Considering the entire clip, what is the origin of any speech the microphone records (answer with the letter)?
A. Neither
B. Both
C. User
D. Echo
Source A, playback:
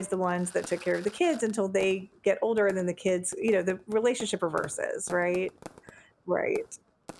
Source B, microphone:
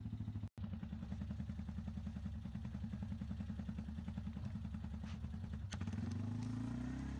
A